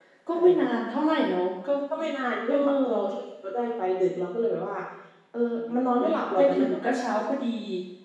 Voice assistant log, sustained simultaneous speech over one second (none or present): present